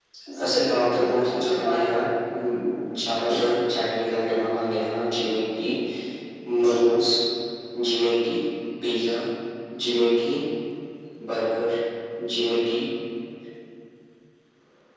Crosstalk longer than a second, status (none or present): present